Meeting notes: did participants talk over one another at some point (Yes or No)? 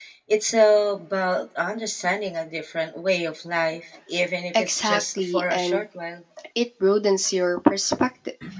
Yes